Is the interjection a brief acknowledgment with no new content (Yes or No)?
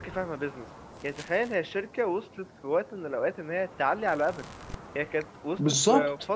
Yes